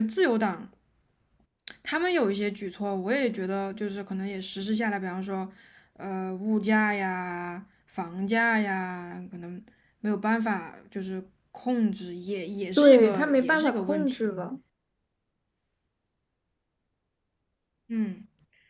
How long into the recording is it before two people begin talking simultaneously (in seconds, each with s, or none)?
12.8 s